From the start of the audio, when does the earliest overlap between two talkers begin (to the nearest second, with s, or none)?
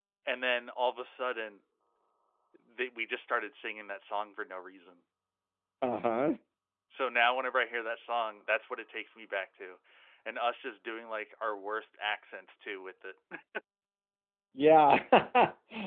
none